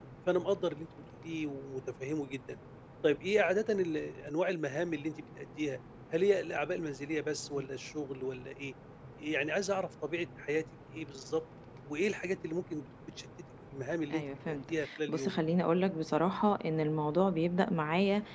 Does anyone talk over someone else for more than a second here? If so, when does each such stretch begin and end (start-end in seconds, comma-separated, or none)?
14.1-15.4